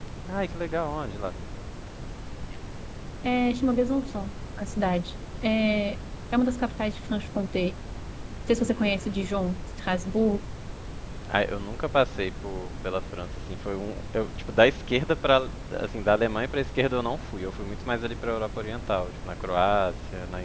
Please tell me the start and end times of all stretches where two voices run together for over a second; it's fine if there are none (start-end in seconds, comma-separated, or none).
none